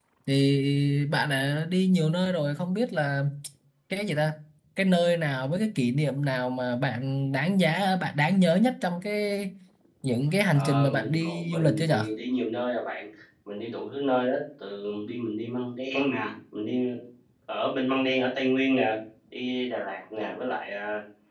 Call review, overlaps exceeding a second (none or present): present